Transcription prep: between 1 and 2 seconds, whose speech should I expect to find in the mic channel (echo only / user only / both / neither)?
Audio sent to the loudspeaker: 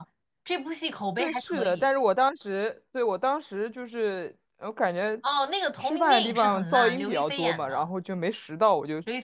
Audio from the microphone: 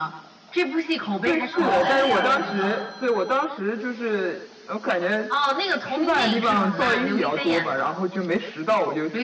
both